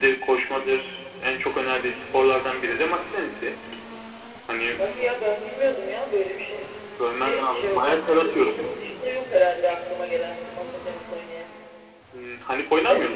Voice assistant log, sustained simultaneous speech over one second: present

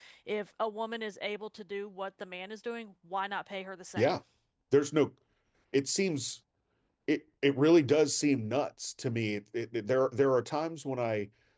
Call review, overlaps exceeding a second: none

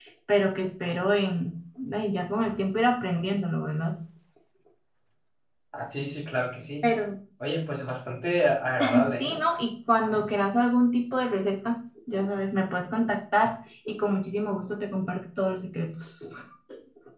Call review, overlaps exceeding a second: none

